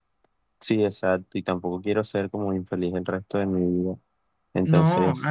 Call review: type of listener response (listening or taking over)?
taking over